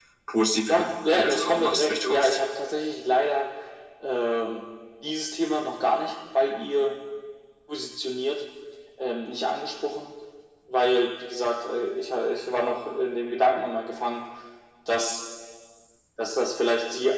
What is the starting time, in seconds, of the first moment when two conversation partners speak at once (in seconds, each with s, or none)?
0.7 s